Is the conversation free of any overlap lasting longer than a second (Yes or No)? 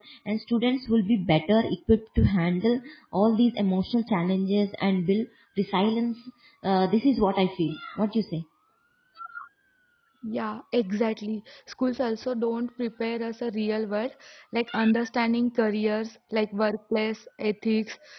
Yes